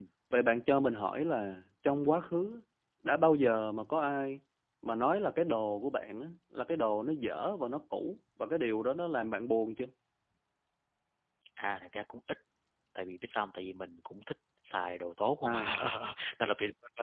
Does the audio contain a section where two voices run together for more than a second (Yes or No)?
No